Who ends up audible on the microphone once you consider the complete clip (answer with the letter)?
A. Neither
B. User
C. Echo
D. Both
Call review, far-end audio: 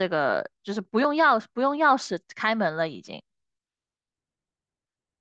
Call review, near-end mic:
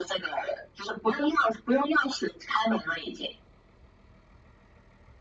C